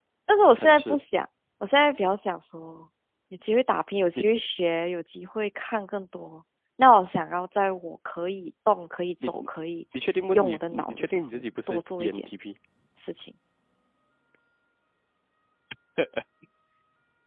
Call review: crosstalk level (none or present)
present